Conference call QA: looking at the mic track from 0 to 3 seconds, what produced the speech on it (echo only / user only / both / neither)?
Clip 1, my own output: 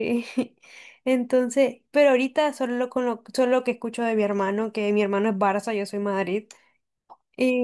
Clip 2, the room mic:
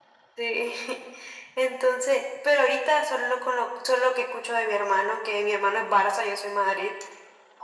echo only